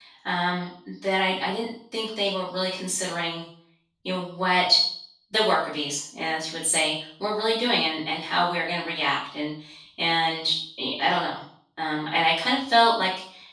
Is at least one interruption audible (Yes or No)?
No